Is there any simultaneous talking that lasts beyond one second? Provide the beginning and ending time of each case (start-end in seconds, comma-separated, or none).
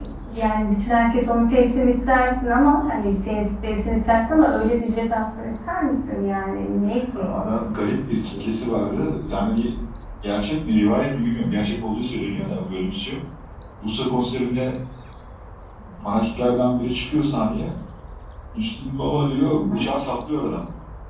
none